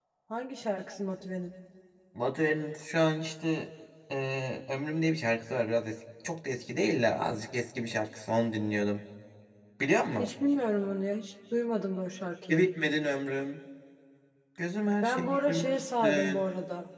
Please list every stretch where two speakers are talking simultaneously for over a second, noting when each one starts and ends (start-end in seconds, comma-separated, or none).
15.0-16.4